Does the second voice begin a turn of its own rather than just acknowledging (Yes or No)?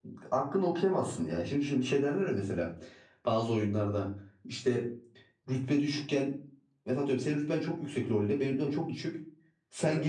No